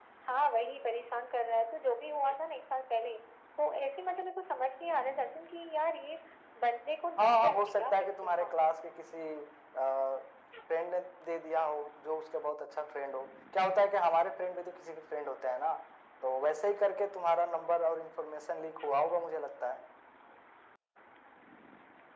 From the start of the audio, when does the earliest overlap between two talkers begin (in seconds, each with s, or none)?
7.2 s